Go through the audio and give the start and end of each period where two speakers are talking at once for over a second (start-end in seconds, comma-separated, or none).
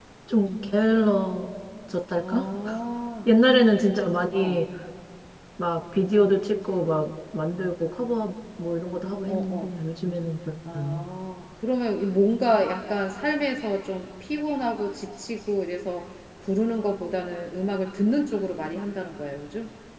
none